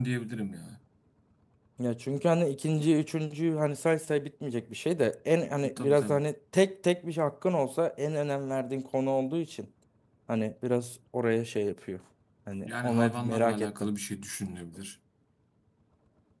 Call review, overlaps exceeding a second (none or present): present